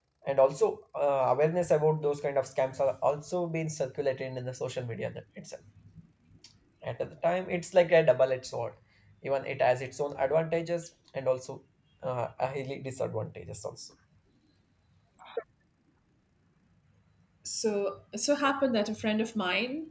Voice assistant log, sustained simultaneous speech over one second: none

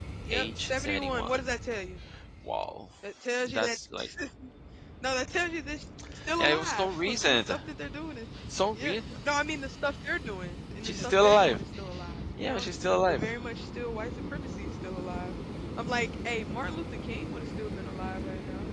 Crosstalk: present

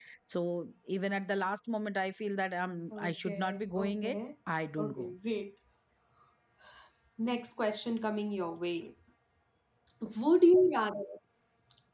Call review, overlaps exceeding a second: present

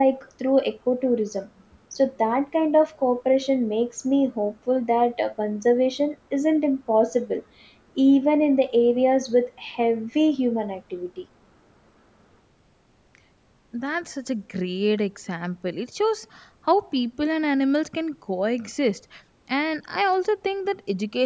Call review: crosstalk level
none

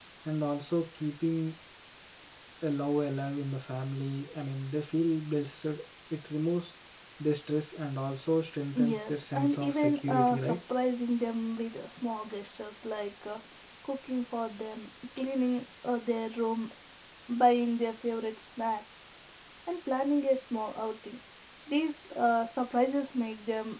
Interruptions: present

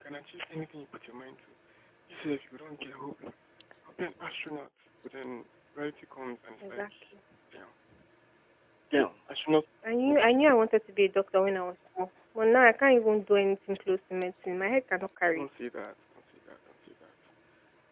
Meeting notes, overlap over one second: none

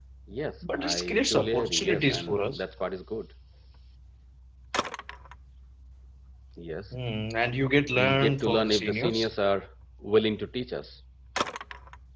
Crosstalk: present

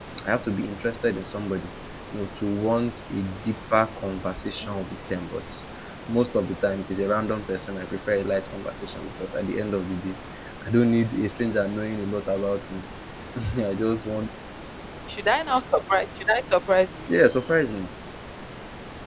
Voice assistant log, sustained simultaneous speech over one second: none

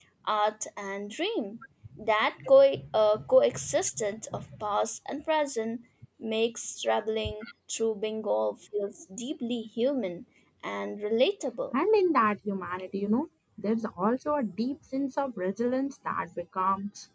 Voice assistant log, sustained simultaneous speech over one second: none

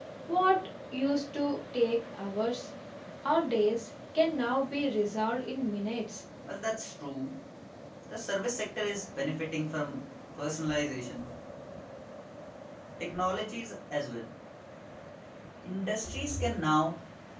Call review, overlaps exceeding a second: none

